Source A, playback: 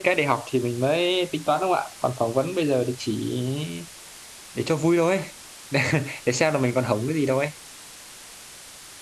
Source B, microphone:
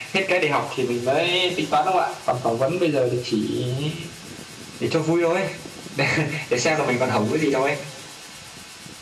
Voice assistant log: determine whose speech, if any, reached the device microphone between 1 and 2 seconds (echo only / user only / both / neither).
echo only